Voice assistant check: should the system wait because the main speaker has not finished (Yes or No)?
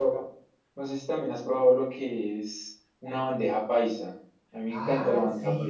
No